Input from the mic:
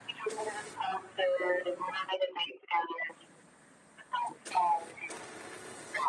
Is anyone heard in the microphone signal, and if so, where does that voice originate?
echo only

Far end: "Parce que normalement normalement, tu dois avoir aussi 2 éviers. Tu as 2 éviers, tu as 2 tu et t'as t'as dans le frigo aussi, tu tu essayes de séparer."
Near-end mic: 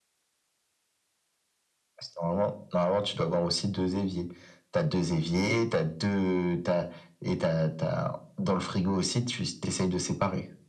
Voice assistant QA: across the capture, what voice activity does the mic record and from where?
echo only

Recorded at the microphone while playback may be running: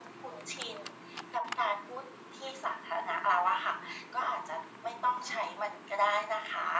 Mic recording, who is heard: echo only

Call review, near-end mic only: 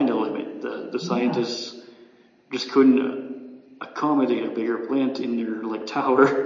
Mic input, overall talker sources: both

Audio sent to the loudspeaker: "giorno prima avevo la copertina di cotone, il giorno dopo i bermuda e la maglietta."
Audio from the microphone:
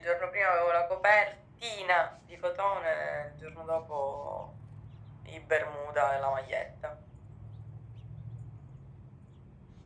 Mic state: echo only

